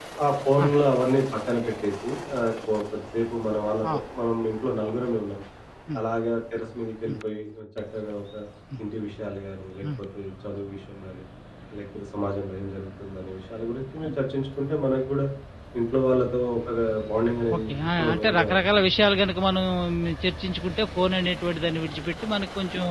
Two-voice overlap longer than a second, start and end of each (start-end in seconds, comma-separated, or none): 17.6-18.8